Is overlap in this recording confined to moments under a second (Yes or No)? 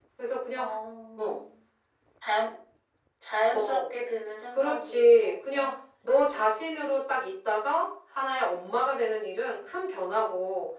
No